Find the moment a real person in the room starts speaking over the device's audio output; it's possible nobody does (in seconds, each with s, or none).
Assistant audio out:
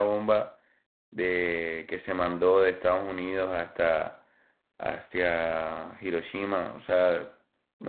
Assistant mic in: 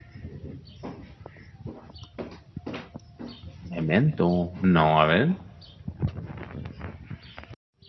3.7 s